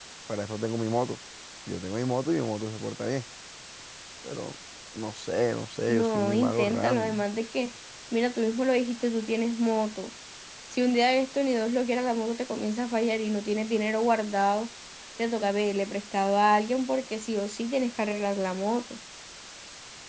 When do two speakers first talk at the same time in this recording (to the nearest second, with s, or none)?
6 s